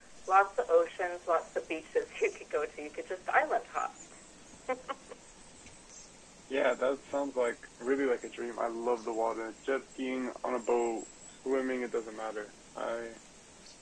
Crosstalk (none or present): none